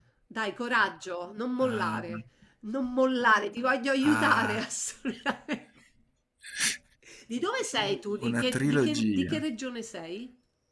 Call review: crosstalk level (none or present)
present